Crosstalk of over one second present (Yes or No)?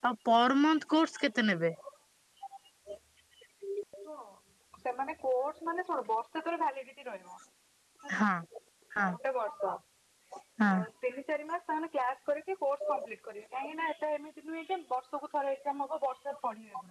No